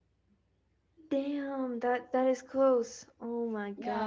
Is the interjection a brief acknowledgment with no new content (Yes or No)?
No